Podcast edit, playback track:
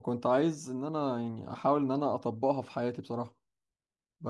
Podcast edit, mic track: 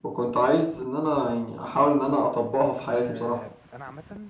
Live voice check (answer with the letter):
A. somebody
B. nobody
A